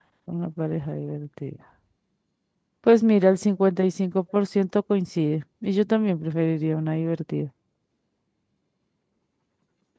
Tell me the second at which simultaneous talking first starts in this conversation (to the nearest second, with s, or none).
none